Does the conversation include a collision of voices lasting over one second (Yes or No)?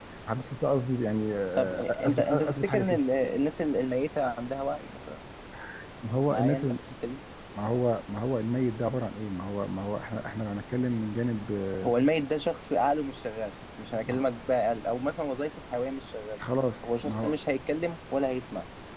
Yes